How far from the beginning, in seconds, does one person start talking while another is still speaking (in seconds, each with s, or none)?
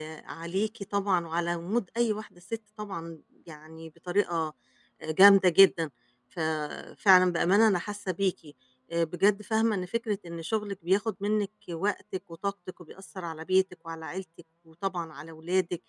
none